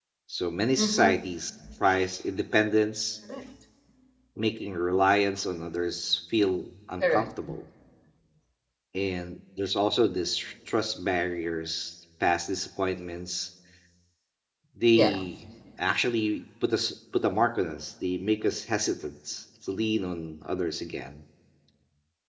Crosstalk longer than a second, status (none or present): none